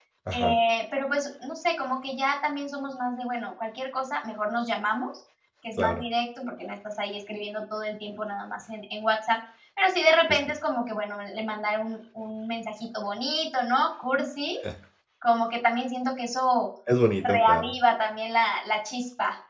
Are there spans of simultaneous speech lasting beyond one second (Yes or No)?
No